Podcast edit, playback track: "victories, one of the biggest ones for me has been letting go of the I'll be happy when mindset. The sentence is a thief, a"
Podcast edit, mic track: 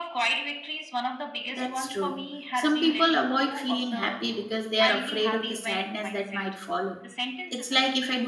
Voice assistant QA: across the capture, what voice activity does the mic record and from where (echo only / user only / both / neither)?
both